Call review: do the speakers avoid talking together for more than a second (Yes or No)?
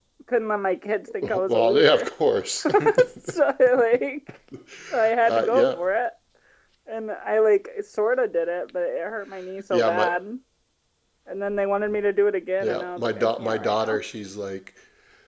No